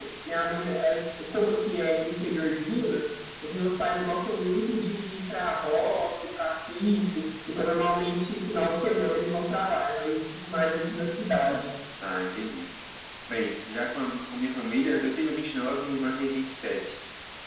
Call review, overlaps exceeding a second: none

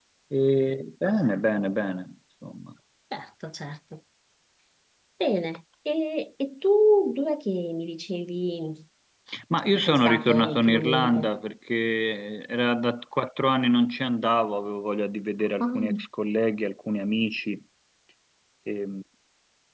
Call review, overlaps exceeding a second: present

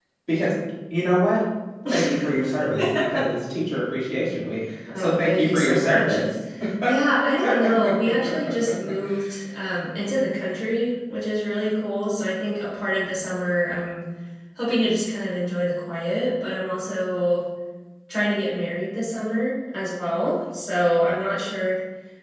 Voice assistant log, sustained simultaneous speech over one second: present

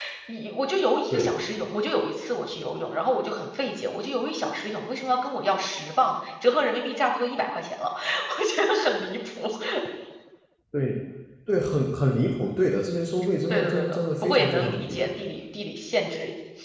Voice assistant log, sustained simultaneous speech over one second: present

